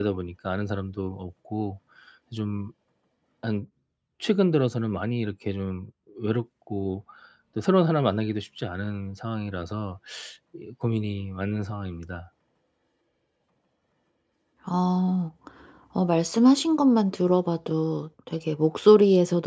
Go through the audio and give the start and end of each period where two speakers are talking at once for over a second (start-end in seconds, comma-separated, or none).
none